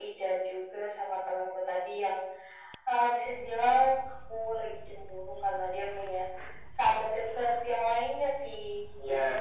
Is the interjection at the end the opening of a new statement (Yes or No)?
Yes